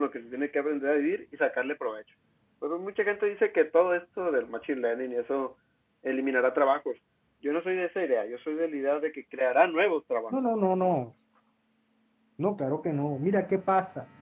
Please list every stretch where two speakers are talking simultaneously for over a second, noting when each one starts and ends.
none

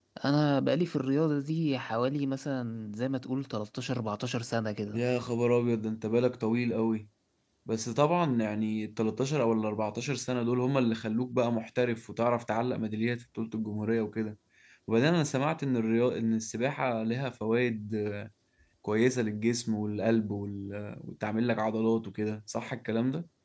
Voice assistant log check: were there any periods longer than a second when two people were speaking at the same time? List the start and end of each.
none

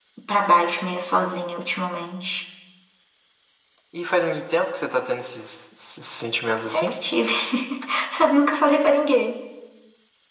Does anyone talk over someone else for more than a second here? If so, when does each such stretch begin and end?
none

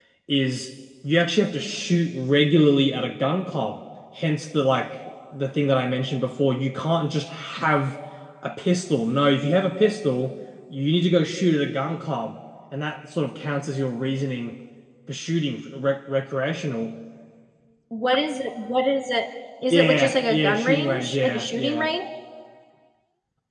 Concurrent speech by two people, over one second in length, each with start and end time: 19.7-21.9

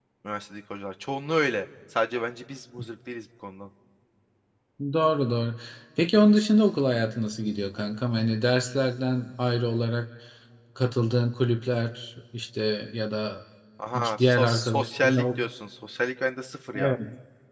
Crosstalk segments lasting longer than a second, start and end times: 13.9-15.2

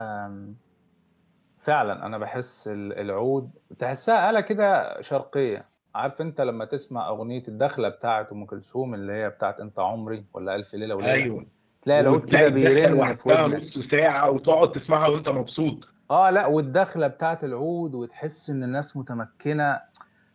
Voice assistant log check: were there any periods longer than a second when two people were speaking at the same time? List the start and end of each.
11.9-13.6

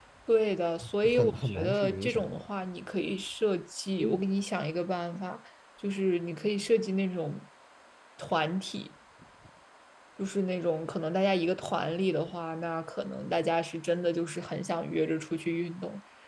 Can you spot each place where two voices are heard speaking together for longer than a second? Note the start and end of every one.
1.0-2.5

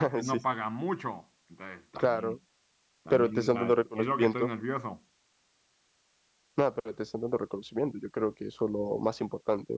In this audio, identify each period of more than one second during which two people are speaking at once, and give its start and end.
3.1-4.5

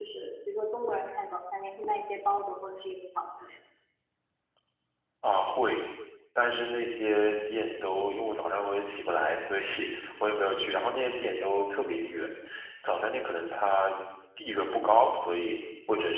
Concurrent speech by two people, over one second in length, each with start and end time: none

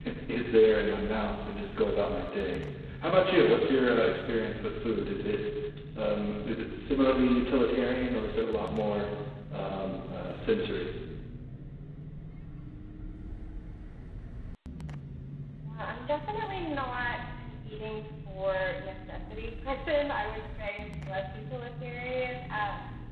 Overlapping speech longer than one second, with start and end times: none

